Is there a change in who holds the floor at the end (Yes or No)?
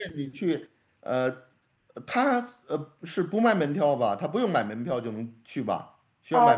Yes